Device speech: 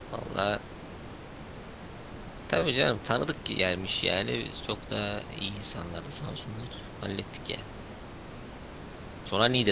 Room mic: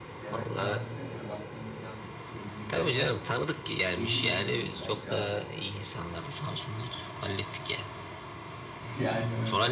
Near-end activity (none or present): present